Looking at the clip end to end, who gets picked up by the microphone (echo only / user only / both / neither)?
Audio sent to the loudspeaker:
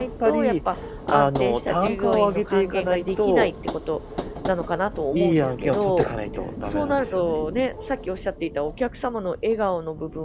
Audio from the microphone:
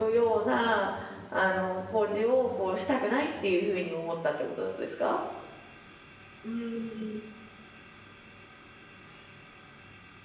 user only